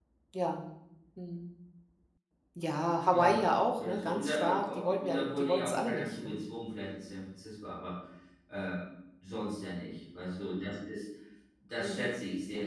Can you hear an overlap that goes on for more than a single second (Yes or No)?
Yes